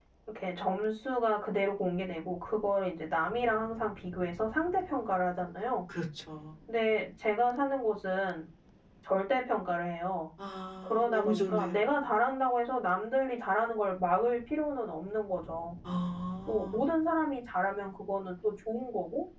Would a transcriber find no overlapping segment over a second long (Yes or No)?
No